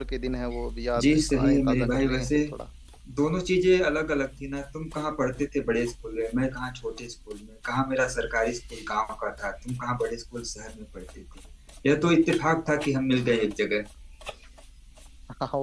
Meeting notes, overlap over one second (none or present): present